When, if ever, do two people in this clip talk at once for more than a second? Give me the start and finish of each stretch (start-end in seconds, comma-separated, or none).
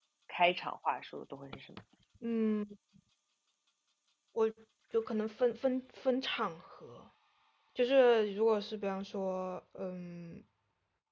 none